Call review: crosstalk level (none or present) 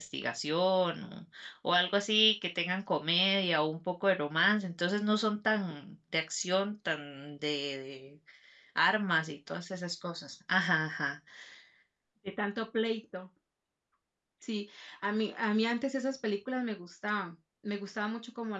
none